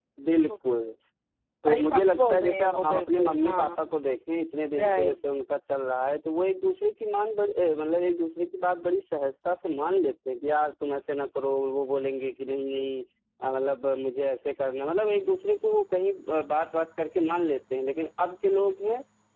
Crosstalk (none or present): present